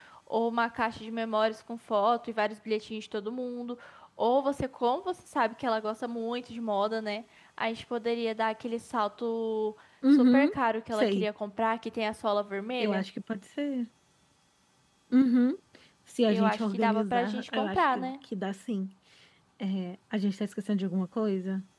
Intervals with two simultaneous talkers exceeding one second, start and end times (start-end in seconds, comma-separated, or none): 16.3-18.1